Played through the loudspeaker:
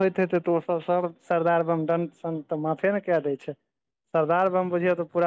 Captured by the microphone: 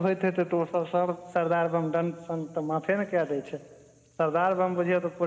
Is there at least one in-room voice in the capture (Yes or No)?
No